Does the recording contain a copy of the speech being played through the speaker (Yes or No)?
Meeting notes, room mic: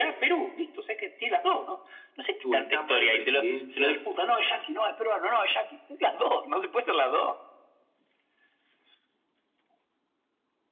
Yes